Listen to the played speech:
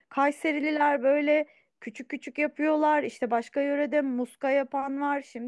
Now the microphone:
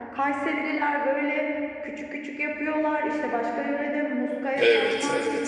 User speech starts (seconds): 4.5 s

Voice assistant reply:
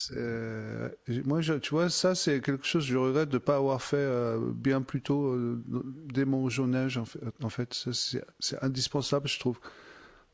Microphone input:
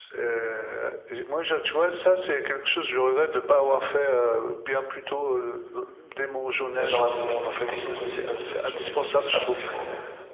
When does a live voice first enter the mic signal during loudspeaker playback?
6.7 s

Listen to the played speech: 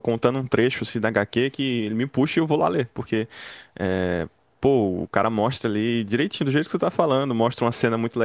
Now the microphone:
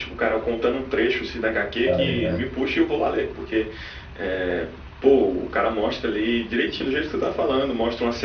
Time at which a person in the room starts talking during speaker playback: 1.9 s

